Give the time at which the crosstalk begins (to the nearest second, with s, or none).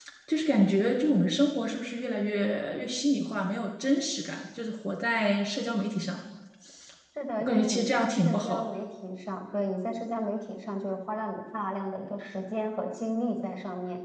7 s